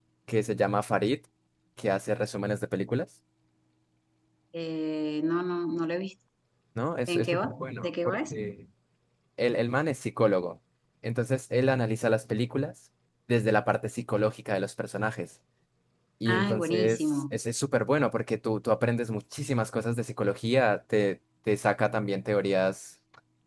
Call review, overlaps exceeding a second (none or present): present